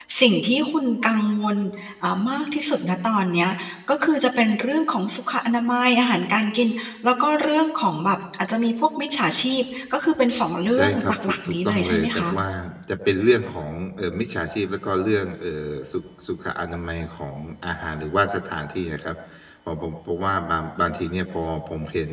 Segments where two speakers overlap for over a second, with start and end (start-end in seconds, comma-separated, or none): 10.8-12.3